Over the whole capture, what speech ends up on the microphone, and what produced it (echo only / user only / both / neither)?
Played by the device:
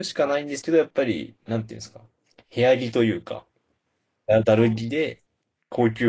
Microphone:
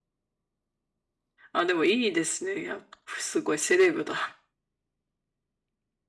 user only